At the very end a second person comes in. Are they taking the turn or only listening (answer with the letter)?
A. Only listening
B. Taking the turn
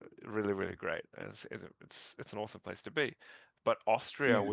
A